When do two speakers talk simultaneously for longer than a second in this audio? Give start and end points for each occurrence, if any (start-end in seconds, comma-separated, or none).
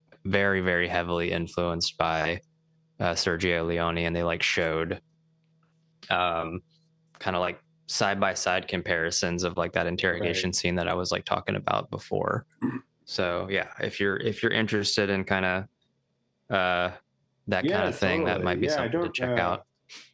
17.6-19.6